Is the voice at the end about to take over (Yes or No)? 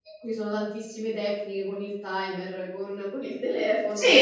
Yes